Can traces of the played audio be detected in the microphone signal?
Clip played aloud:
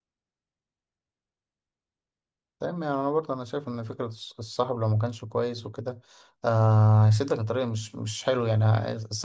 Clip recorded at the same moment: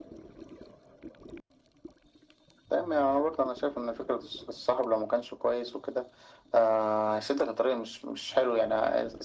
Yes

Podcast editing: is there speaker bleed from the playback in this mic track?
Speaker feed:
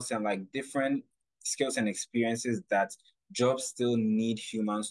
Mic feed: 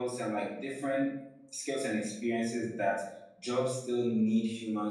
Yes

